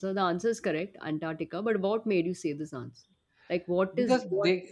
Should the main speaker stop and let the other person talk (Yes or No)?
Yes